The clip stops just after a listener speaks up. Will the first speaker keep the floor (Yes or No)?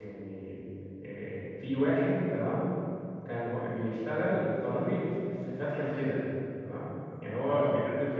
Yes